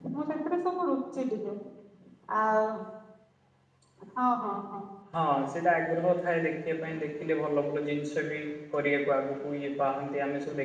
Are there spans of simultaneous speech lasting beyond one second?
No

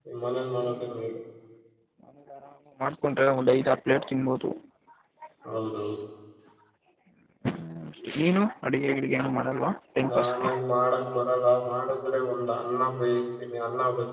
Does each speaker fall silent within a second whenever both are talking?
Yes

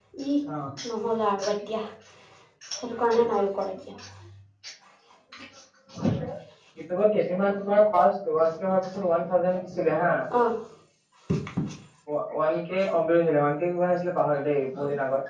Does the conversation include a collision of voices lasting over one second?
No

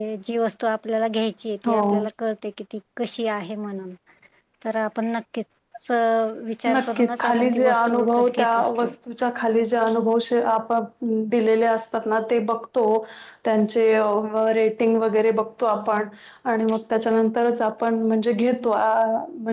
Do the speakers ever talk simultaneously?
Yes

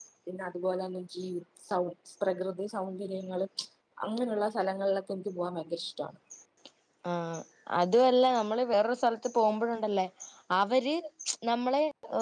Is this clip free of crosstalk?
Yes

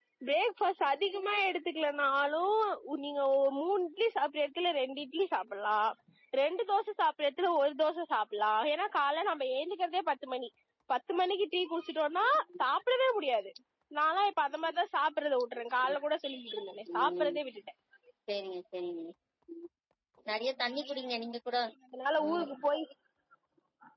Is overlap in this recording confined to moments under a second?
Yes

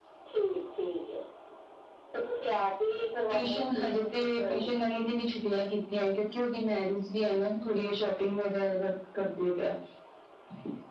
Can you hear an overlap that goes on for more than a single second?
Yes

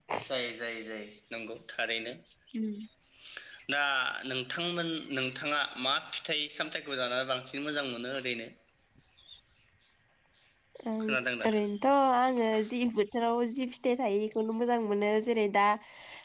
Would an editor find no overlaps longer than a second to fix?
Yes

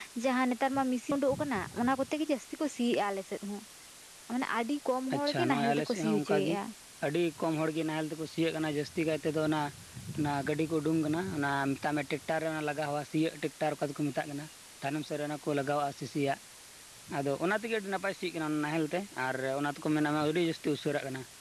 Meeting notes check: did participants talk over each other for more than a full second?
Yes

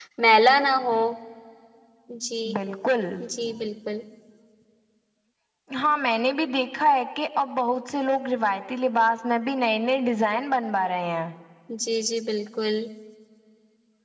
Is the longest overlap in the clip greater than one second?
No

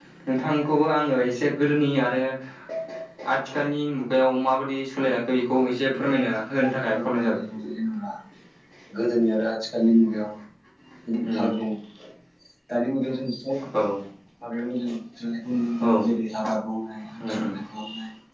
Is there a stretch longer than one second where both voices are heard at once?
Yes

